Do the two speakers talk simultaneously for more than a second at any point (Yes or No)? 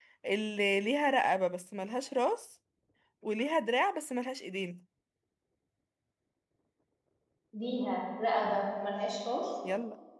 No